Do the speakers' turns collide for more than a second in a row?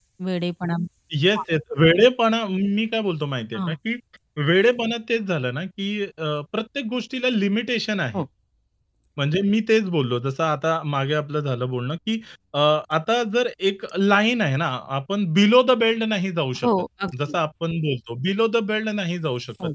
No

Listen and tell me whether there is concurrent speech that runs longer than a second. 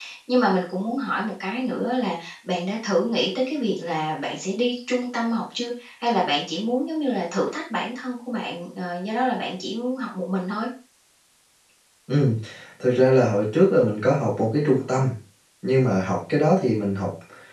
No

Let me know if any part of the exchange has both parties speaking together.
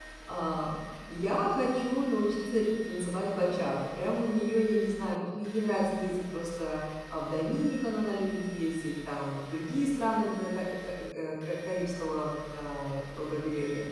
No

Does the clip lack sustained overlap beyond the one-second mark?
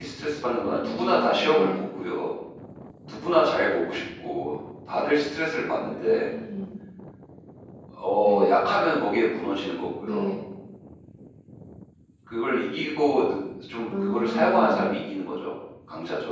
No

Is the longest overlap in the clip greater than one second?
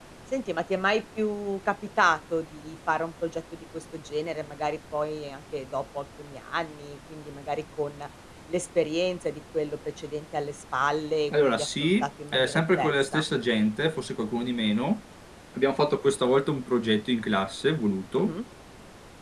Yes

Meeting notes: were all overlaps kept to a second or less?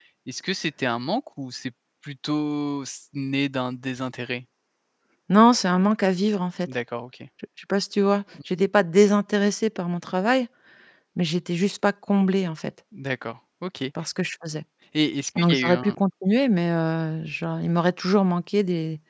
Yes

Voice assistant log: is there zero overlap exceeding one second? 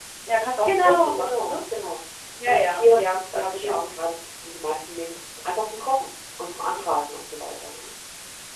No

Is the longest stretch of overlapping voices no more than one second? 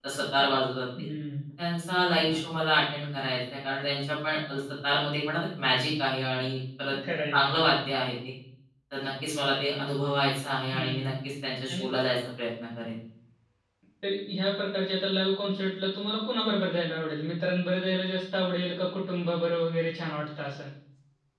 Yes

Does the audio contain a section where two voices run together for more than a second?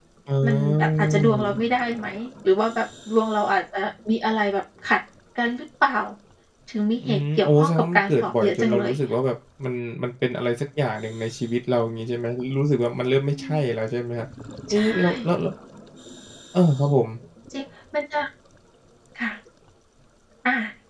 Yes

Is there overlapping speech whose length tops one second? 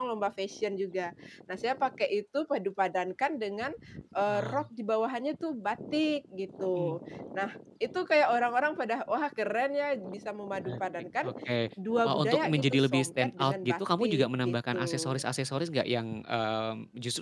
Yes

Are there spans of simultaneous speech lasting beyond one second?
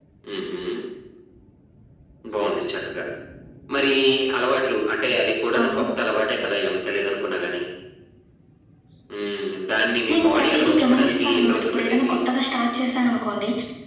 Yes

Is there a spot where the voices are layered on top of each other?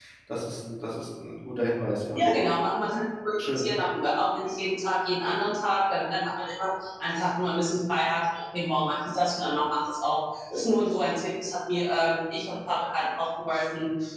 No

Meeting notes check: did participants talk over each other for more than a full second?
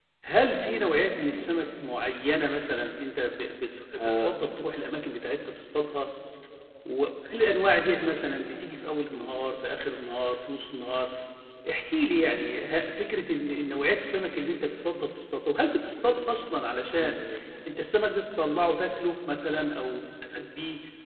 No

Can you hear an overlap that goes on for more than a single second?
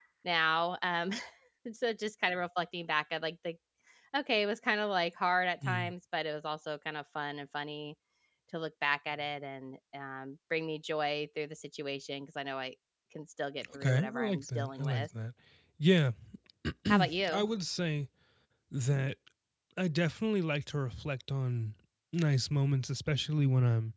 Yes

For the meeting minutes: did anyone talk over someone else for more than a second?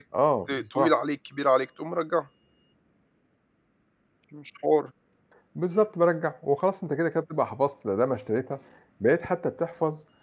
No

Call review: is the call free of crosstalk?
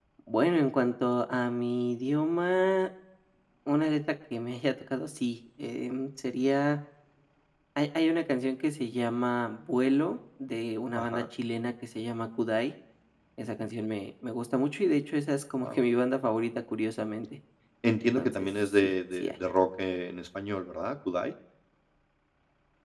No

